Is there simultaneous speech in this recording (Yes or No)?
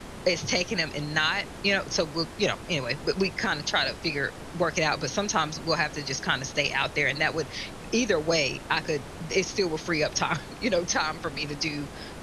No